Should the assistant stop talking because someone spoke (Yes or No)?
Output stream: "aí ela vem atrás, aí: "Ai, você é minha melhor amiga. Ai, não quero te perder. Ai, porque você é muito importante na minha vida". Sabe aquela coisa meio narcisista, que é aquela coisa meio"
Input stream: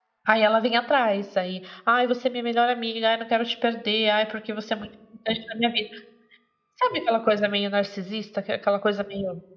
No